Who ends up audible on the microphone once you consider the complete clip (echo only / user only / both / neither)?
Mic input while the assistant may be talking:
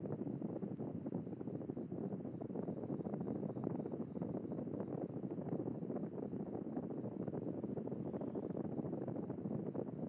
neither